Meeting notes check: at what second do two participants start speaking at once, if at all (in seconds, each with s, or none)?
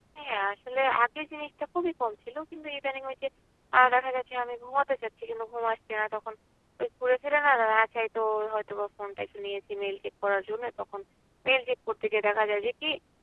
none